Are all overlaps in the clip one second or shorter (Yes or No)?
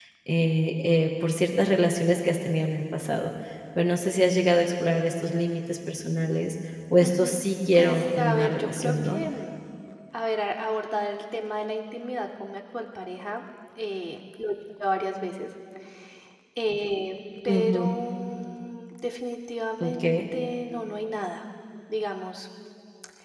No